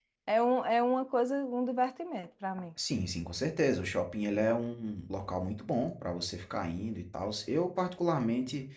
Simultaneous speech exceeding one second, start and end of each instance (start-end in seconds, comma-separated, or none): none